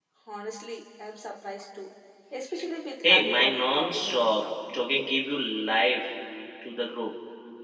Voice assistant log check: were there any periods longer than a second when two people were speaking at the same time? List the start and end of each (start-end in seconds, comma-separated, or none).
3.0-4.5